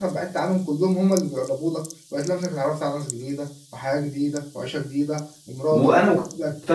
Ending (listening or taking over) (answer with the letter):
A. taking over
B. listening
A